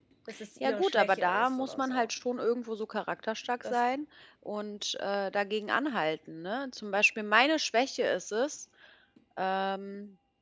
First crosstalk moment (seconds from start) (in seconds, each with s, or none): 0.6 s